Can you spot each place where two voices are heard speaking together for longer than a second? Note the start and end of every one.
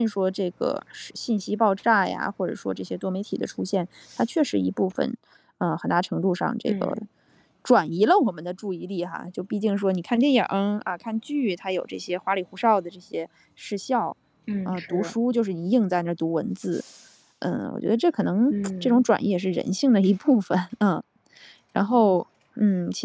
none

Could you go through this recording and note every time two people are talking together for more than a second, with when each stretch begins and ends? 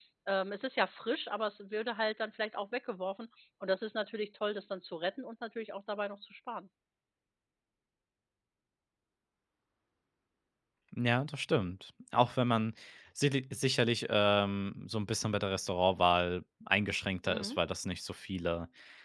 none

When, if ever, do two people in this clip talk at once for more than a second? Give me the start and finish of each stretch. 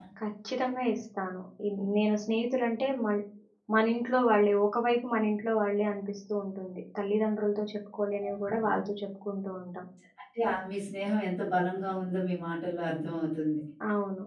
none

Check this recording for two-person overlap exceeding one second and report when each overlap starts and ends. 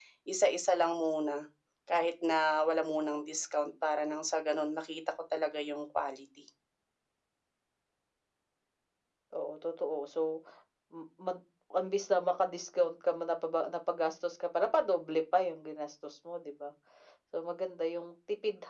none

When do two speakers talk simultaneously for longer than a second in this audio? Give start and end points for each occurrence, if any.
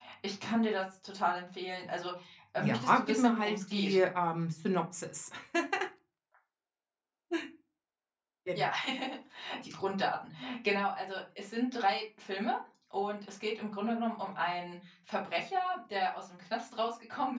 2.6-4.0

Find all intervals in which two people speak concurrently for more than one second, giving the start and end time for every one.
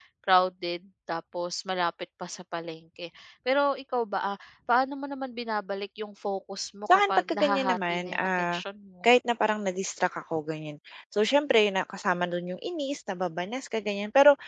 6.9-8.6

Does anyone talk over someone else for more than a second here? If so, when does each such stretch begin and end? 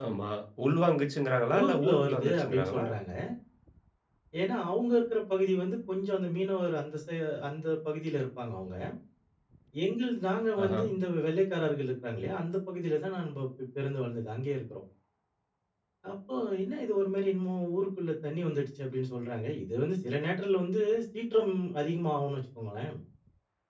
1.6-2.8

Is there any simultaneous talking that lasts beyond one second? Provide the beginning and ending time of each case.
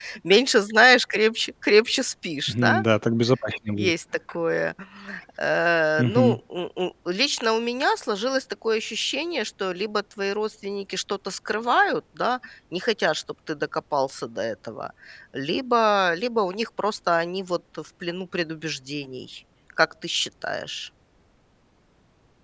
none

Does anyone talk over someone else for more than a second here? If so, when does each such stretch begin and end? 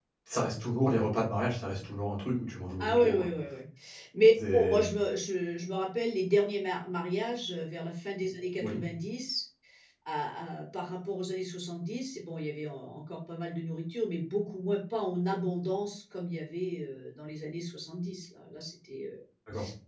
none

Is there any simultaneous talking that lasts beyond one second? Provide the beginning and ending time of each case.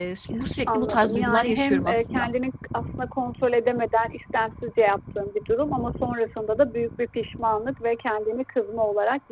0.7-2.3

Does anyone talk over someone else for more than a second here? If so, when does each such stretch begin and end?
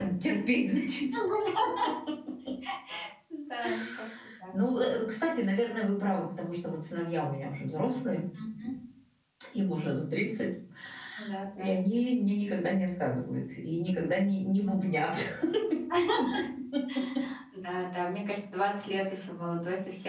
none

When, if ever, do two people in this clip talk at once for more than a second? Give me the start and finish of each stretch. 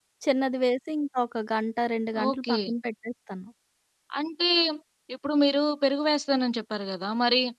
none

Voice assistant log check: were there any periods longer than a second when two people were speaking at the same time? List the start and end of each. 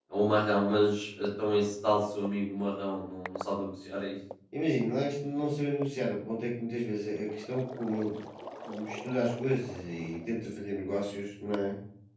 none

